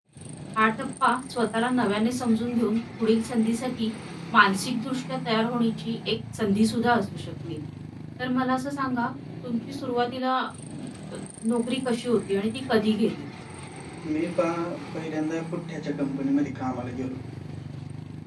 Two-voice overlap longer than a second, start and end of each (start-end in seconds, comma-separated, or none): none